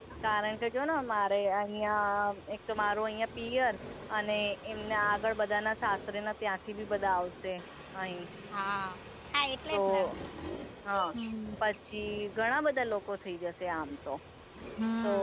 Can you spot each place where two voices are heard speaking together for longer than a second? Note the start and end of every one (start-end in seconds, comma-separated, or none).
none